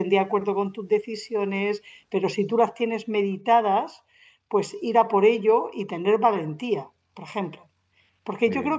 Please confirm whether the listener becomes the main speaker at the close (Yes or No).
No